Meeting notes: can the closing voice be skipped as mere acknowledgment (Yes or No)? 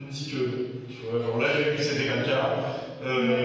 No